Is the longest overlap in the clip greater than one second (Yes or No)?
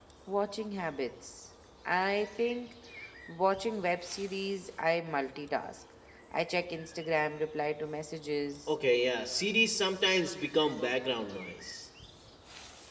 No